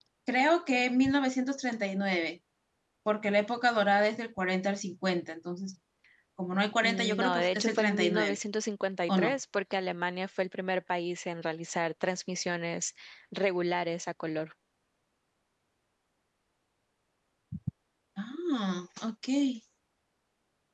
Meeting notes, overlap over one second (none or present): present